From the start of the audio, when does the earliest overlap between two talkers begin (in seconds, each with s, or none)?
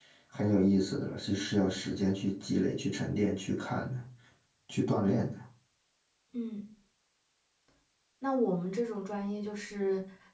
none